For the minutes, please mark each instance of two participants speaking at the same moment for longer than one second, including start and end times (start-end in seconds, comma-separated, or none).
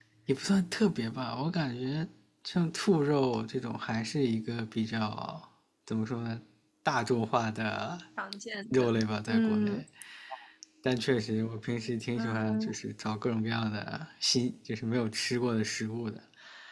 none